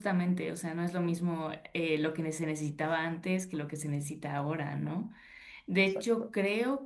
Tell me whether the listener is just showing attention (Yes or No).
Yes